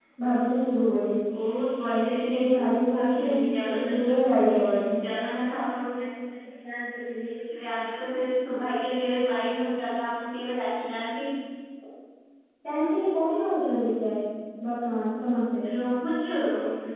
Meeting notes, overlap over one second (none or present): none